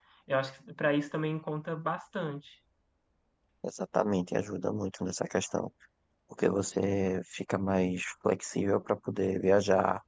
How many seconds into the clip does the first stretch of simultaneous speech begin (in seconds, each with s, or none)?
none